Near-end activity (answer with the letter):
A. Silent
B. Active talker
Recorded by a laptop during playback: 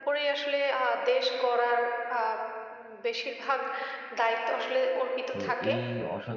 B